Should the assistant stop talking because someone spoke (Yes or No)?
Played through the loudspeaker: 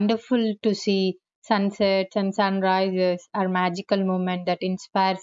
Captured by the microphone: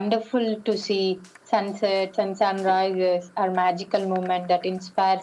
No